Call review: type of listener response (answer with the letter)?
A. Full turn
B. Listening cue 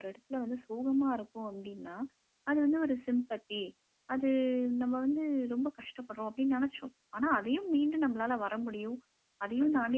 B